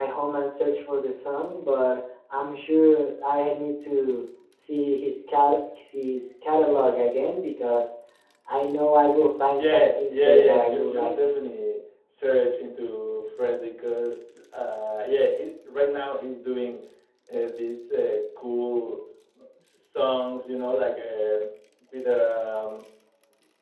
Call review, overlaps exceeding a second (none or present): present